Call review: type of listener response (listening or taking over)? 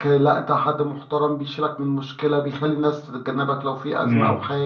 taking over